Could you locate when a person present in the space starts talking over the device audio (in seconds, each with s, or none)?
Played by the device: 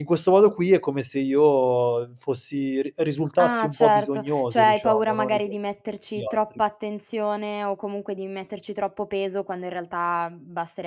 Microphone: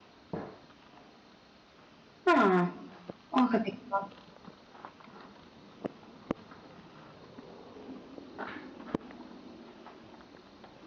2.2 s